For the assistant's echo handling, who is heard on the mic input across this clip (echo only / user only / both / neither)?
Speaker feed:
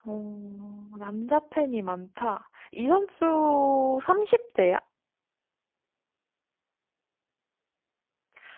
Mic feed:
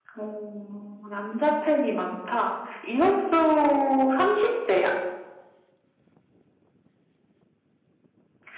echo only